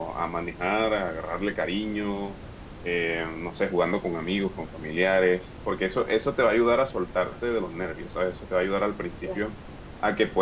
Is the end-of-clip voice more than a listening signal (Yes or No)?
No